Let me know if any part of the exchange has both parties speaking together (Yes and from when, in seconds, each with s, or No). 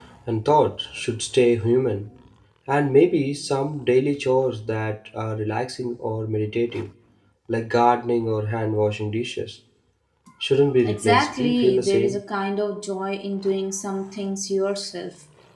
Yes, from 10.8 s